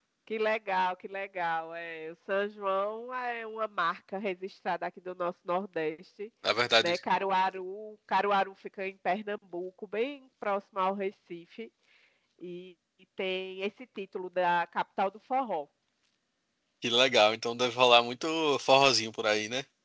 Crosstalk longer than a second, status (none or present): none